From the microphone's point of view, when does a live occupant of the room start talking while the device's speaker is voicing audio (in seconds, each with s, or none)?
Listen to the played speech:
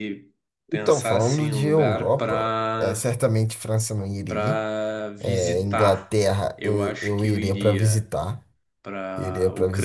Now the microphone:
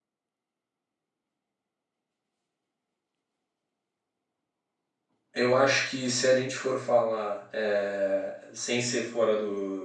5.3 s